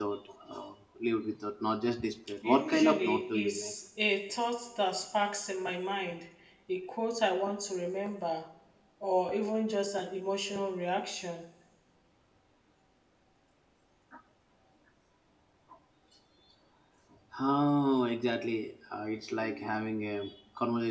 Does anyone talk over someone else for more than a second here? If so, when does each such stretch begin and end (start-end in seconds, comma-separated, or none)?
2.4-3.7